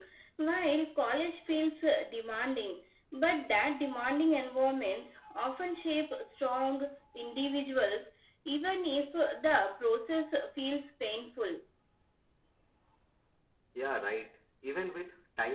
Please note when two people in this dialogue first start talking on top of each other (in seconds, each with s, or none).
none